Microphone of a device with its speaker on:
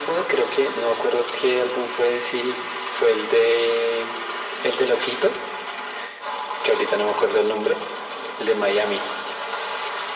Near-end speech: none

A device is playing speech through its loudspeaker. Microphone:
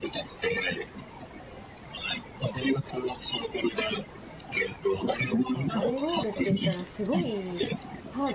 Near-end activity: present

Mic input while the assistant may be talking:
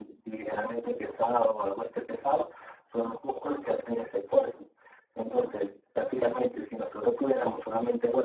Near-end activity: none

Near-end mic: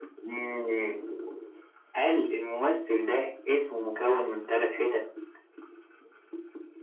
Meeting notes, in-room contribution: none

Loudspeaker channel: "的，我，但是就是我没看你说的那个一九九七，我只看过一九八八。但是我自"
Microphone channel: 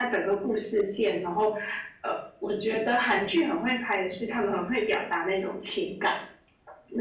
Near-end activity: present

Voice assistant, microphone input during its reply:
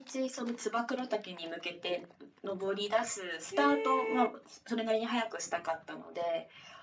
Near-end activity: present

